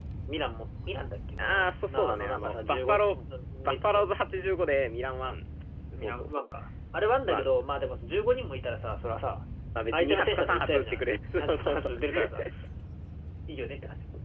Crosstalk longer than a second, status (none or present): present